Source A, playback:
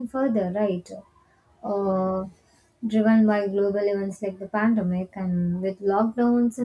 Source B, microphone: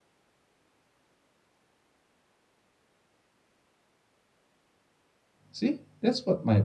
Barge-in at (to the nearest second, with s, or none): 6 s